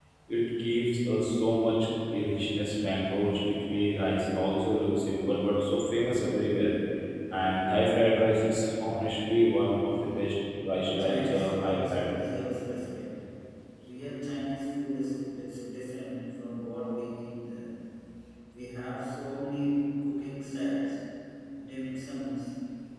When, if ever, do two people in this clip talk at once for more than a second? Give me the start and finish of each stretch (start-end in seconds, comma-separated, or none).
10.7-12.1